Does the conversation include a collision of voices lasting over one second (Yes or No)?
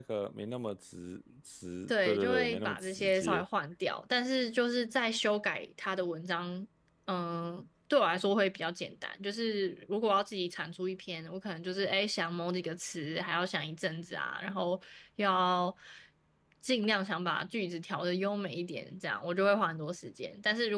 Yes